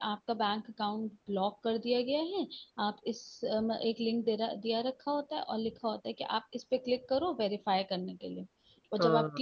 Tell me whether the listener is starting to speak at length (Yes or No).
No